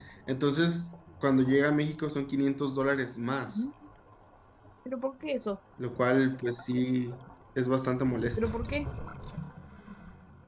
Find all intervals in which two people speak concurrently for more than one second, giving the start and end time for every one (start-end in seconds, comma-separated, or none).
none